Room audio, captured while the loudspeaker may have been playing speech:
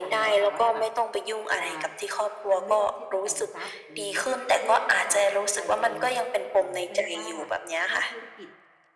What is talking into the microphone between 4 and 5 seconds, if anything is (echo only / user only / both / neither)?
both